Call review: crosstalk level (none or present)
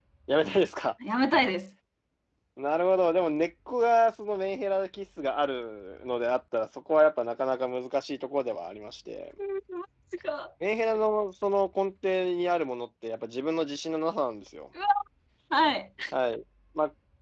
none